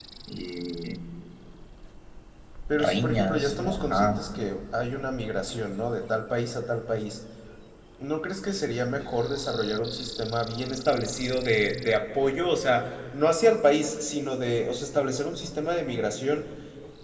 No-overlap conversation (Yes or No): No